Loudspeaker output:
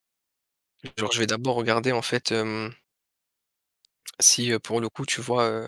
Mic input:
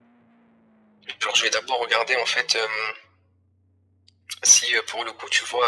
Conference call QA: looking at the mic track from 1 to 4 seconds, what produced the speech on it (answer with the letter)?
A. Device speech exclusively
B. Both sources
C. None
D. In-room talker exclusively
A